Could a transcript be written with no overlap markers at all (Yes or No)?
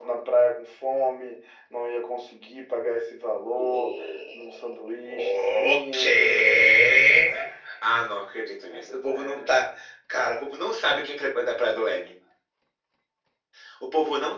No